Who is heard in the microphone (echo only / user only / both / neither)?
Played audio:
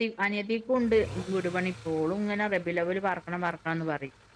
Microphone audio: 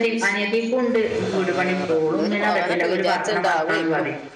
both